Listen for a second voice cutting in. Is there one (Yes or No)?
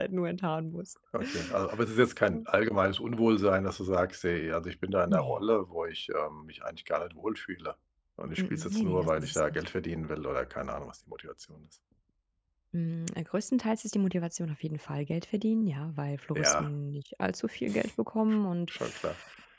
Yes